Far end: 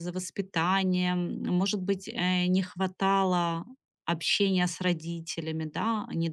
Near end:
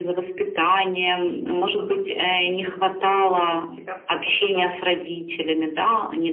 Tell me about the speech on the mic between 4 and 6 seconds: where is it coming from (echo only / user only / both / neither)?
both